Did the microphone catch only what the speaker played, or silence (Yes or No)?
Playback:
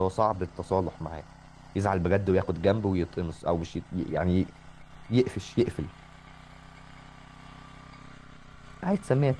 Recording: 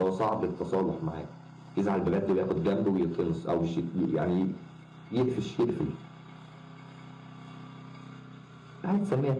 Yes